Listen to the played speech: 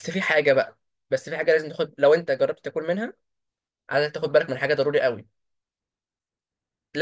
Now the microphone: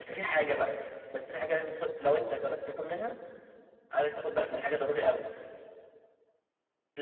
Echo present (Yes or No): Yes